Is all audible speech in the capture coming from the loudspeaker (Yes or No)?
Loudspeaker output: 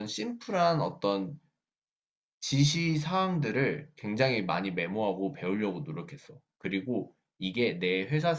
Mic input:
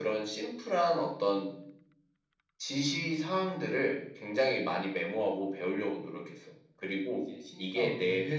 No